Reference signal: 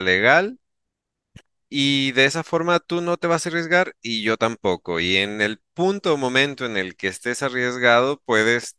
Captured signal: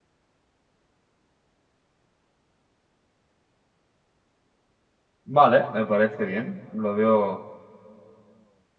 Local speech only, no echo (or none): Vale, me parece bien, lo veo